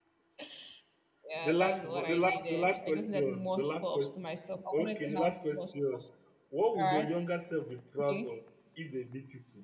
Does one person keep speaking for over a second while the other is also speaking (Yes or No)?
Yes